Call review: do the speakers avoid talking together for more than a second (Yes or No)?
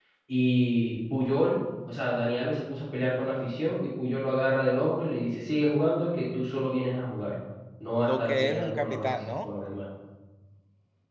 No